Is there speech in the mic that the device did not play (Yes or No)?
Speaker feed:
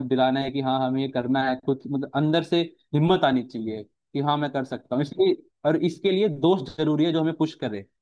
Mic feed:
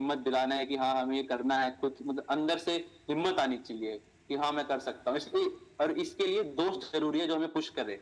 No